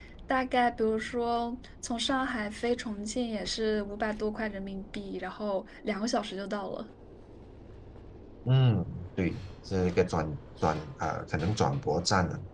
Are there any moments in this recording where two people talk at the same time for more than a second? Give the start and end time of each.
none

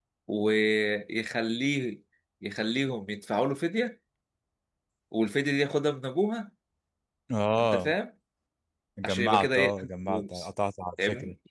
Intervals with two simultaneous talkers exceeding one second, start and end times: 9.0-10.5

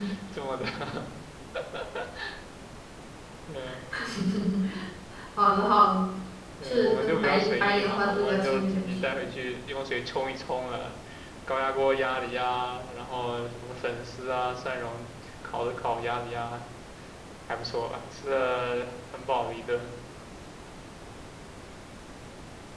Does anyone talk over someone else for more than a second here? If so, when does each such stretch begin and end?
6.6-9.2

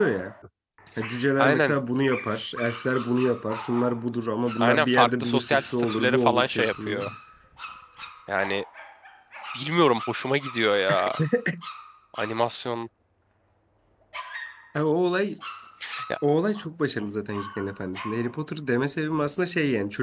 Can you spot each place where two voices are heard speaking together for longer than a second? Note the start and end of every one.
4.6-7.0

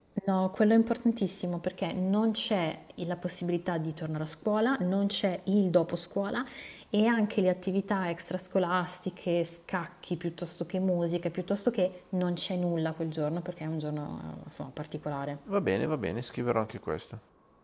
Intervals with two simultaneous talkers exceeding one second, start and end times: none

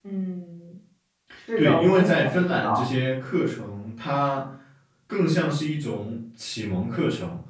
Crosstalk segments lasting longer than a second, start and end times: 1.6-2.8

